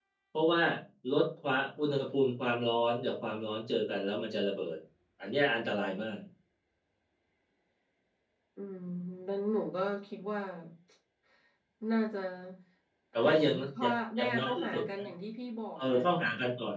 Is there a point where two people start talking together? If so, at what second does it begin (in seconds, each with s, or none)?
13.2 s